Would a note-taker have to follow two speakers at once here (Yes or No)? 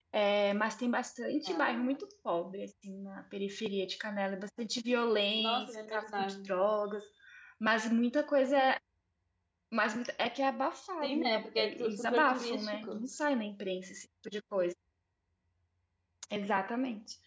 Yes